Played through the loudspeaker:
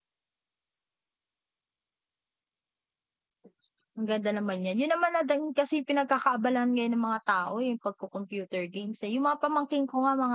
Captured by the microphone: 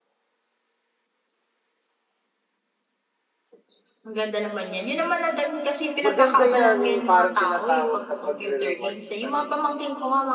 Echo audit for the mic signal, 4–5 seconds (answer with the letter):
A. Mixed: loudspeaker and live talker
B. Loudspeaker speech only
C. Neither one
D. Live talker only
B